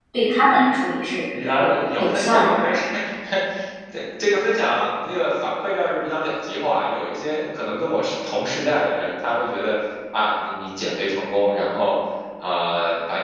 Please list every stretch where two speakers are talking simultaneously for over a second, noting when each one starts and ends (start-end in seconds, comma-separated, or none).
1.3-2.7